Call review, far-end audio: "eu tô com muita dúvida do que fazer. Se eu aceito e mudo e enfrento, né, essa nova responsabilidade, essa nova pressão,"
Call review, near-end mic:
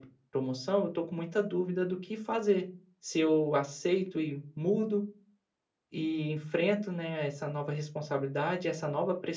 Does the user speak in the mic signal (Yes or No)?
No